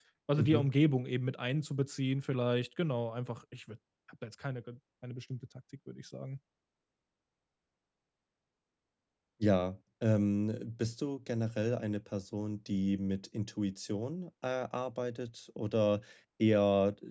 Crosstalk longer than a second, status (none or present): none